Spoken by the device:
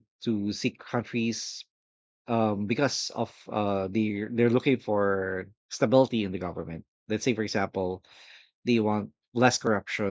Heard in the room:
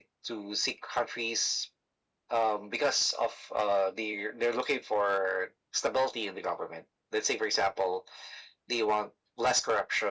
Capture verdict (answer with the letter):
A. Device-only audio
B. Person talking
A